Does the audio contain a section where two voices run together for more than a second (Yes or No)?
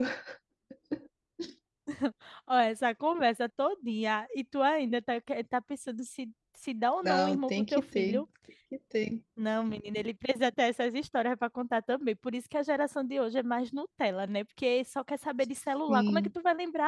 Yes